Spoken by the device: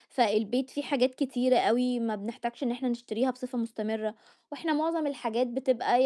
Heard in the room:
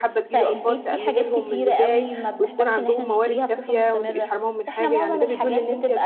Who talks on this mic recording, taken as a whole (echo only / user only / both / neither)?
both